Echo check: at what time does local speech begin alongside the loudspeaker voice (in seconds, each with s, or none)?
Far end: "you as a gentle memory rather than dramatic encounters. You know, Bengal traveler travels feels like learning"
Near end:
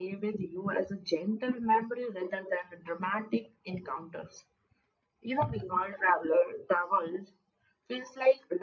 none